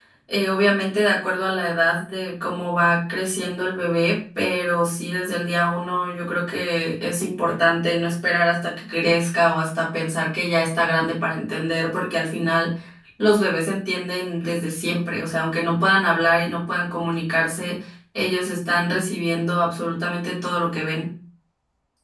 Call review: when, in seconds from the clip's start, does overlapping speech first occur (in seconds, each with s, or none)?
none